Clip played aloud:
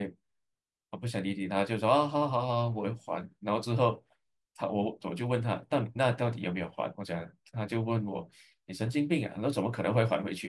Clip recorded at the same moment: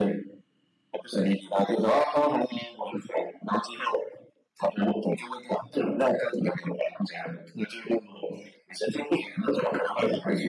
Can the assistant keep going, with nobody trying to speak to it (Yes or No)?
Yes